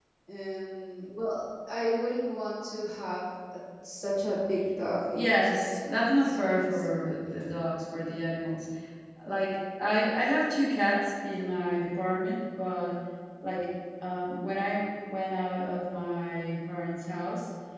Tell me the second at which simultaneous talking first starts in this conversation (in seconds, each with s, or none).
5.2 s